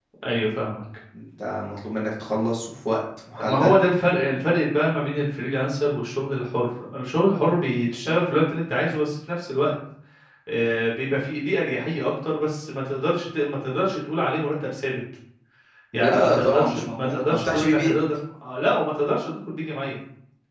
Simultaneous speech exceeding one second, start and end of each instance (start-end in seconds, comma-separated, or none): 16.0-17.9